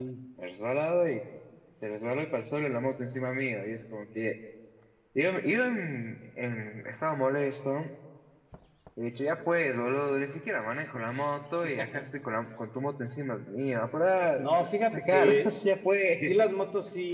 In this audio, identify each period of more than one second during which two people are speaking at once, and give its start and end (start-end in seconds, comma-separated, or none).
14.4-15.6